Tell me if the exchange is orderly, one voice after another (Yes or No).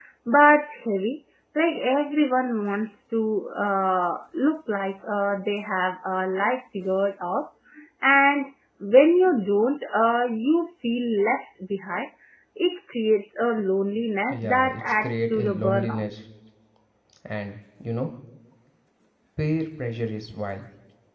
No